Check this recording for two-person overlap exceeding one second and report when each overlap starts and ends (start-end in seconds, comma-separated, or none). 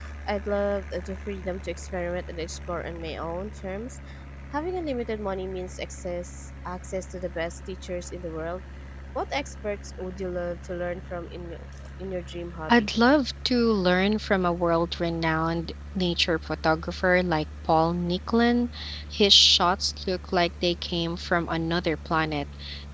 none